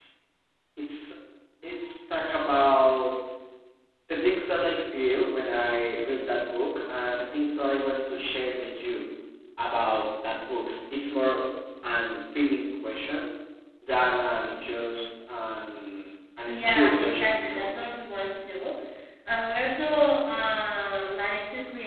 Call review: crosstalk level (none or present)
present